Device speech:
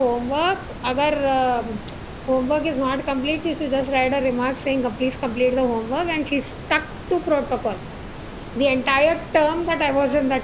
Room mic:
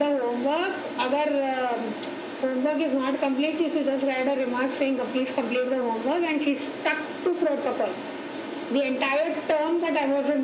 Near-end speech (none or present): none